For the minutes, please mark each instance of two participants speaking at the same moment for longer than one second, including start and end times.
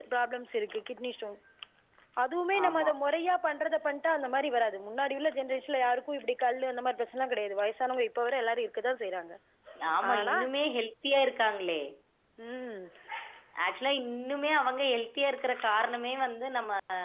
none

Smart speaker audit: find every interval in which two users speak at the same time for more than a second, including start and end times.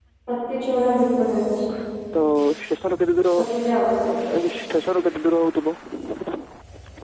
none

